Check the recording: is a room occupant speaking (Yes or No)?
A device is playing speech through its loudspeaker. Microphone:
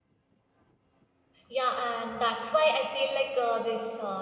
Yes